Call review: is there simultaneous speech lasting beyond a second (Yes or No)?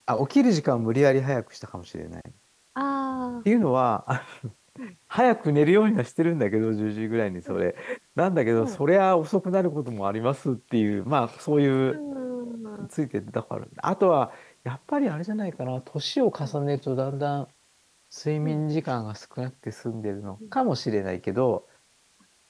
No